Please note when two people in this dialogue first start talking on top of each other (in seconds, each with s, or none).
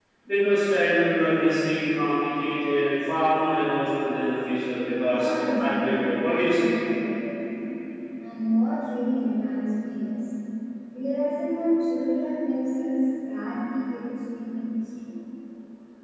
5.0 s